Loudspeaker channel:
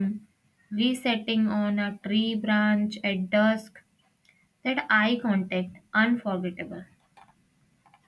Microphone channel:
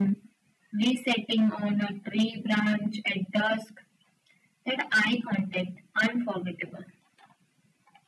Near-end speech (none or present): none